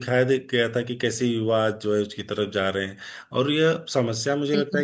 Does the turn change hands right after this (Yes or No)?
No